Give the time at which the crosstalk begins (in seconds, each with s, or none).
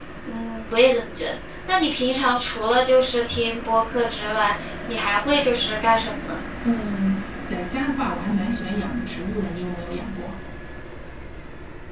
none